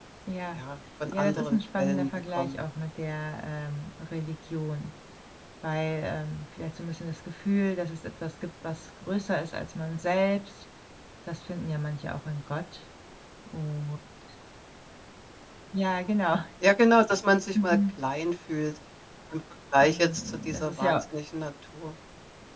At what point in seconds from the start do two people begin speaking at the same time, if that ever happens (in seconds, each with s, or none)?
1.1 s